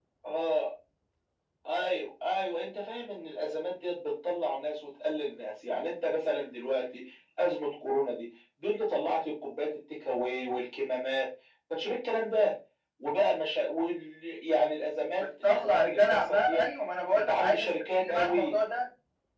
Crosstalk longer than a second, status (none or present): present